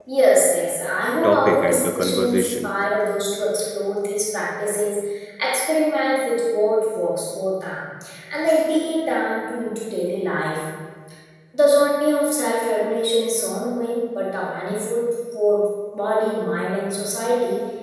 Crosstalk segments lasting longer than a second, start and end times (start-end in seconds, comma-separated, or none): 1.2-2.7